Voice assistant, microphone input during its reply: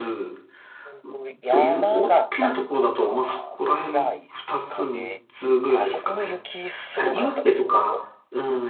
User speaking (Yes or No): Yes